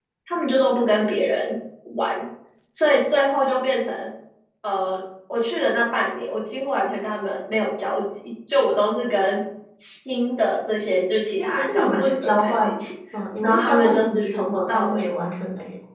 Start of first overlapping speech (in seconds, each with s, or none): 11.4 s